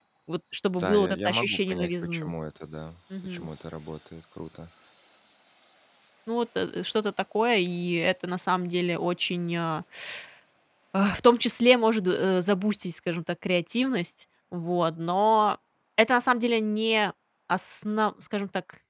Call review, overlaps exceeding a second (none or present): present